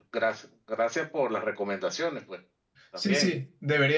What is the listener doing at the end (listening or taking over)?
taking over